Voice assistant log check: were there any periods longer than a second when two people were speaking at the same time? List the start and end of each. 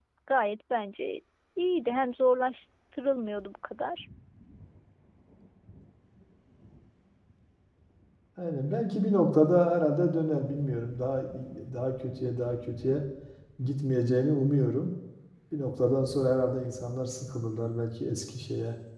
none

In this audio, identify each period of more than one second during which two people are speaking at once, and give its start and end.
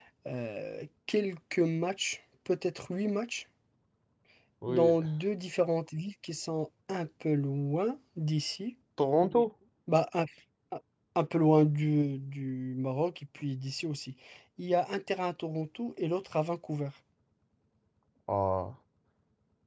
none

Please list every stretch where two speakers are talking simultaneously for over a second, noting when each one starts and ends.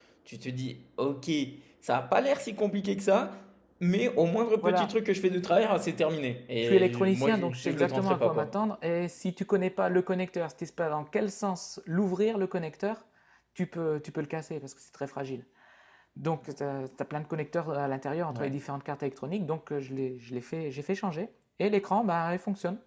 6.6-8.6

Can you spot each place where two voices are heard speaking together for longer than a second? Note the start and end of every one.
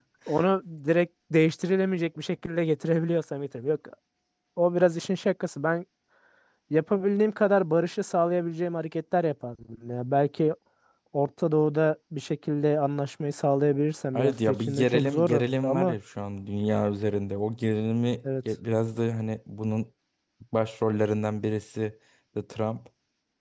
14.1-15.9

